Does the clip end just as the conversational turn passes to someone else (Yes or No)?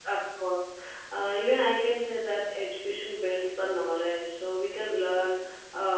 No